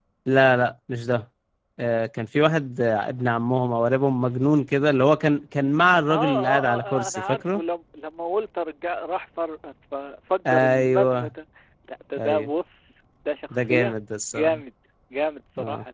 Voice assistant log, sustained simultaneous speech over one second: present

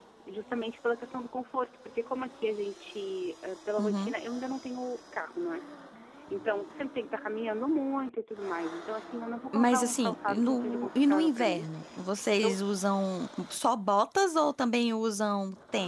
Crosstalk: present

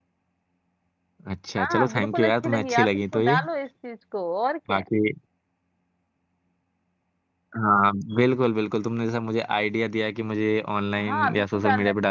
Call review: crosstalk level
present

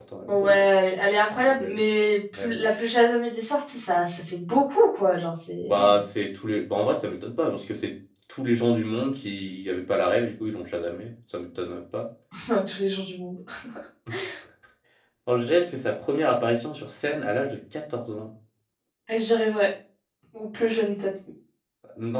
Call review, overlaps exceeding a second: none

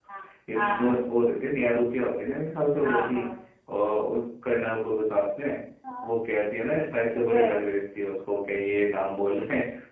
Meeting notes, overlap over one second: none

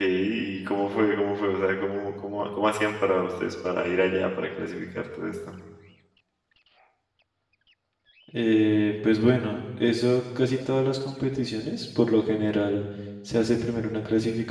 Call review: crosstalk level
none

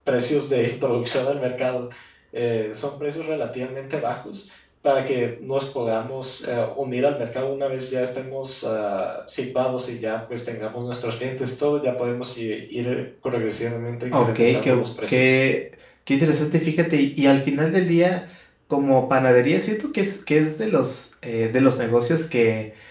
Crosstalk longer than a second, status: present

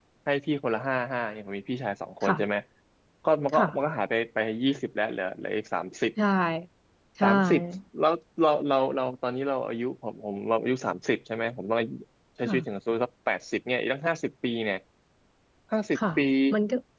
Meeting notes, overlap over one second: none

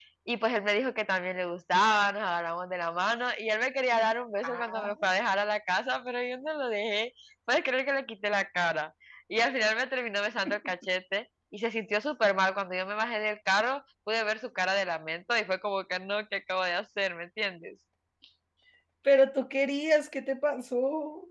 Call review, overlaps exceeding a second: none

